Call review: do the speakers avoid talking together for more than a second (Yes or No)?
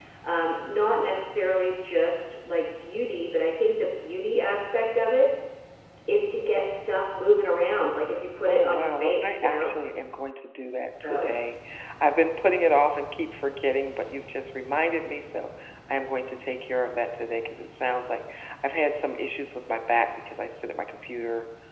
No